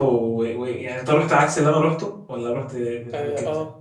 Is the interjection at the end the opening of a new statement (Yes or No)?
Yes